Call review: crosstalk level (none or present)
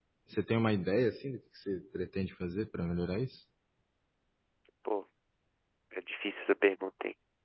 none